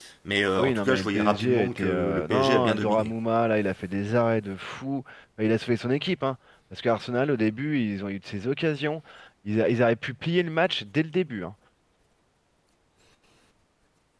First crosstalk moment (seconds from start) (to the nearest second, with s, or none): 1 s